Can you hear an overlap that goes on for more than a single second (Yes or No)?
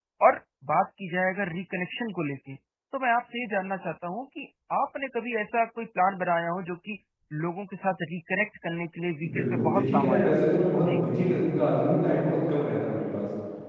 Yes